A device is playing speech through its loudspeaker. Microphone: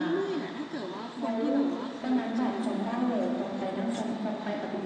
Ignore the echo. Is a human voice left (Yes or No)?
Yes